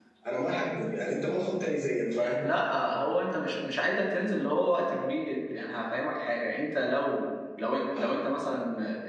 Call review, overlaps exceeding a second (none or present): none